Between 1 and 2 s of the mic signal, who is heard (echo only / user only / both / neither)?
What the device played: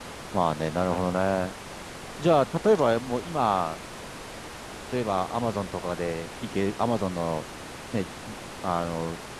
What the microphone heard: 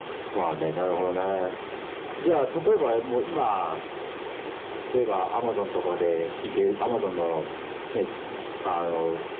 echo only